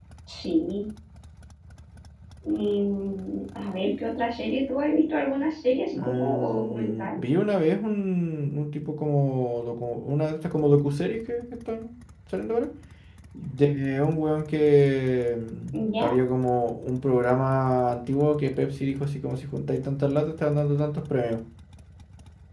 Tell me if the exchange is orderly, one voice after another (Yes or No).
No